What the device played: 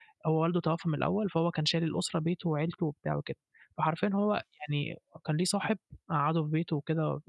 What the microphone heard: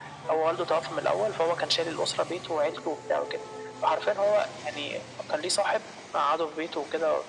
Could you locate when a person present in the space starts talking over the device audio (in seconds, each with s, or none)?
none